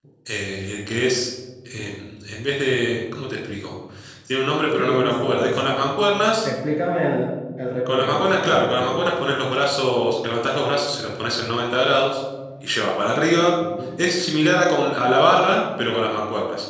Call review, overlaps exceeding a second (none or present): present